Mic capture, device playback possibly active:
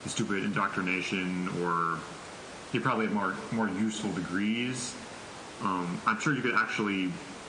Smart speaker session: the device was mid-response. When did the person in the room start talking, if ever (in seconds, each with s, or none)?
none